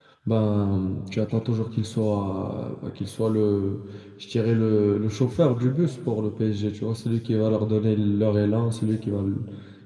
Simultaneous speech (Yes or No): No